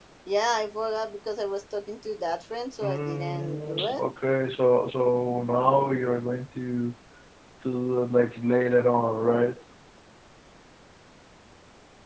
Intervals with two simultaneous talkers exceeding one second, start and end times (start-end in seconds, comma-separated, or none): 2.8-4.0